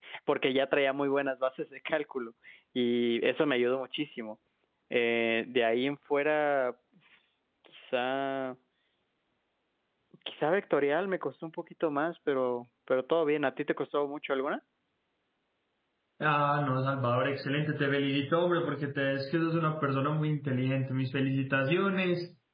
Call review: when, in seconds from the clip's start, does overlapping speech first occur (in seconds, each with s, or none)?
none